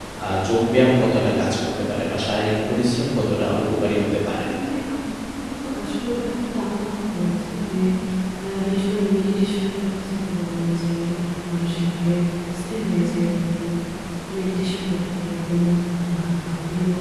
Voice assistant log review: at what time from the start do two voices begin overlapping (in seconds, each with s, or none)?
none